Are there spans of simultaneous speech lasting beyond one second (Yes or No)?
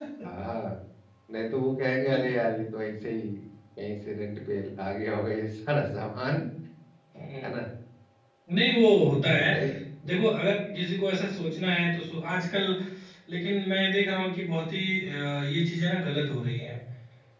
No